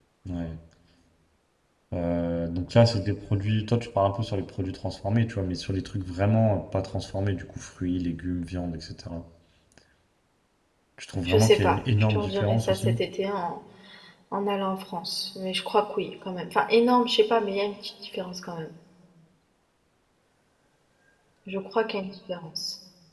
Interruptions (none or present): present